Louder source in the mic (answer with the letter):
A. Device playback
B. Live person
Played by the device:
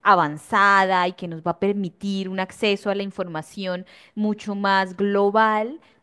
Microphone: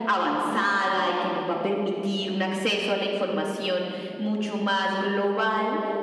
A